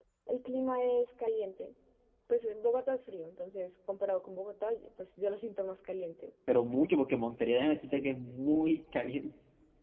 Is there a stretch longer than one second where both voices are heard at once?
No

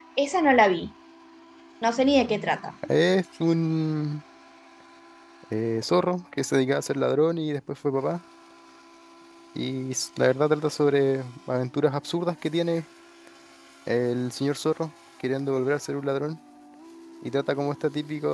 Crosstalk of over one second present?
No

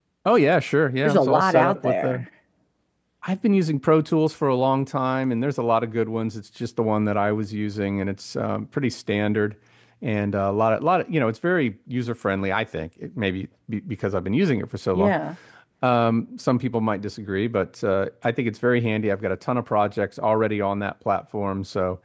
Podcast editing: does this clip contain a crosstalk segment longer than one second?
Yes, from 1.1 s

